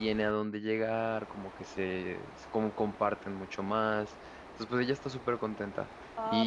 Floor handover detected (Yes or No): Yes